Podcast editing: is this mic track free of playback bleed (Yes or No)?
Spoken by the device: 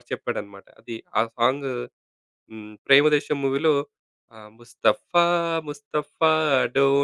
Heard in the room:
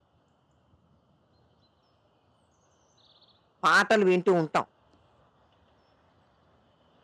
Yes